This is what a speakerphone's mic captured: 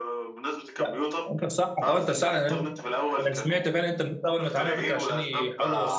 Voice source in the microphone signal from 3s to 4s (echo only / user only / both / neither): both